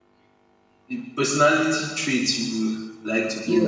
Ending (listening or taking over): taking over